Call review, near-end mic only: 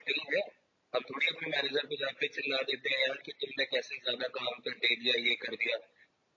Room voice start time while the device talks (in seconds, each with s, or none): none